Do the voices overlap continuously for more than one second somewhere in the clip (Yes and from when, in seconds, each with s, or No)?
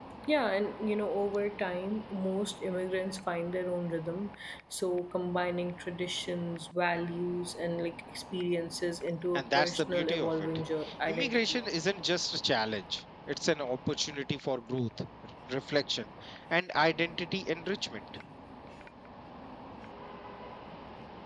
Yes, from 9.3 s